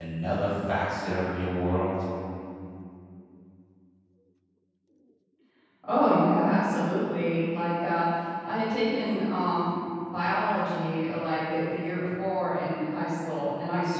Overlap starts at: none

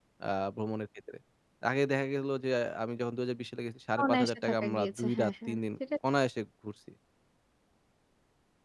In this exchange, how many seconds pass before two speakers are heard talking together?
4.0 s

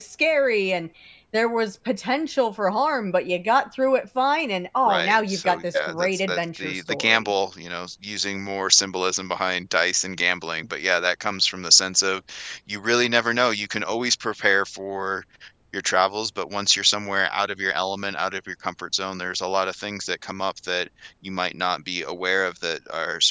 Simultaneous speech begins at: 4.9 s

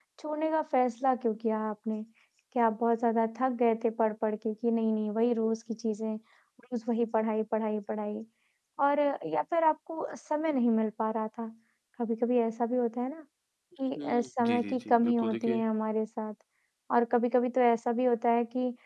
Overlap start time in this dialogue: 14.0 s

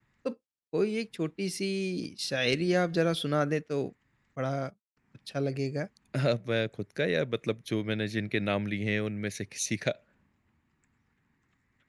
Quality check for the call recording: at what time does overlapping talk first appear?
none

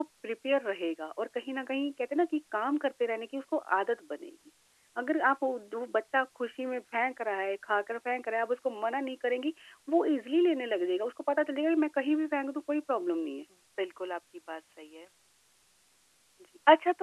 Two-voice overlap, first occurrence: none

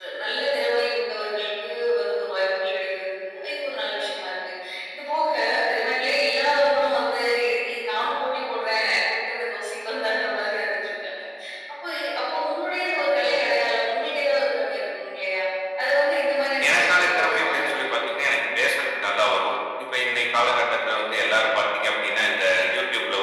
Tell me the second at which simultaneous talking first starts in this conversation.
16.7 s

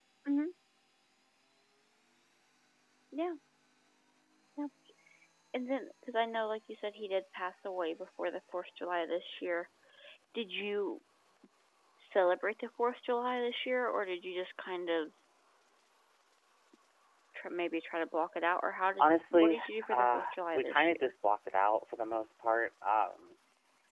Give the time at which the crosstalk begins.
19.0 s

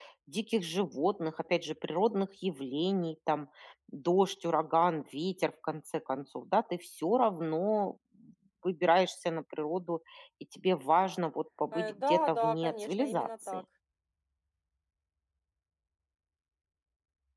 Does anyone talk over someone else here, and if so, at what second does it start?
11.7 s

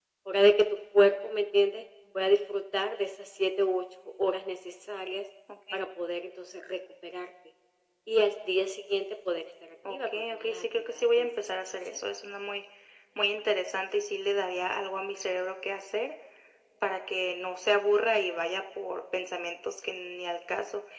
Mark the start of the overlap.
9.8 s

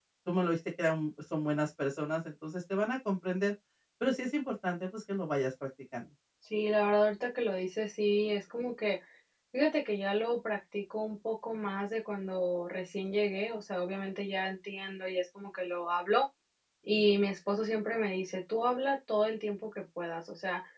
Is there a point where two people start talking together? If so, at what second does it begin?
none

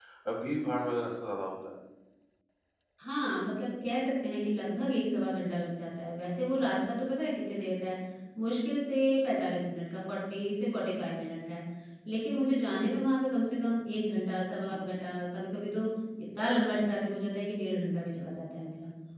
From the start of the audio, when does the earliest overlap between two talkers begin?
none

